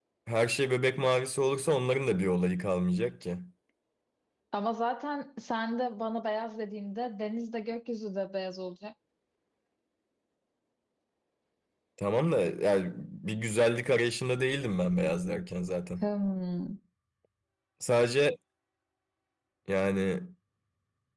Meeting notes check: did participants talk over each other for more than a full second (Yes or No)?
No